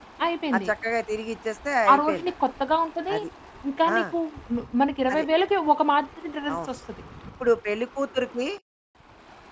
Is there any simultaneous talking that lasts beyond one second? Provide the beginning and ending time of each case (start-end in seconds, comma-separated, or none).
none